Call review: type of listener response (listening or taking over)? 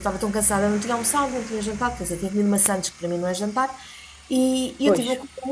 listening